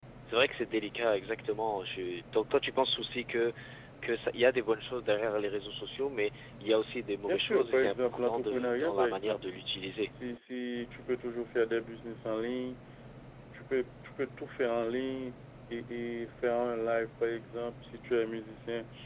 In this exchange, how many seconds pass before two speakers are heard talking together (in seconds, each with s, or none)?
7.3 s